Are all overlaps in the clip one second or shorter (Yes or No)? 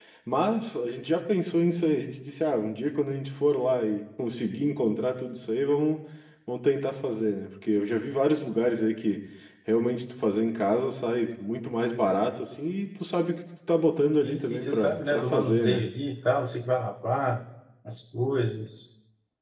No